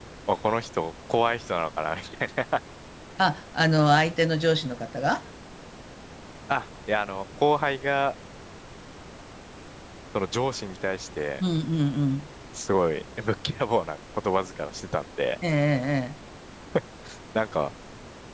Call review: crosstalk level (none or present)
none